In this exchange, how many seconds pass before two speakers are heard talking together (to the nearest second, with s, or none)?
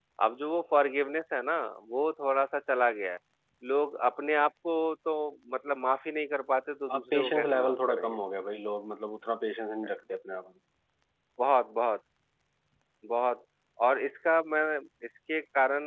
7 s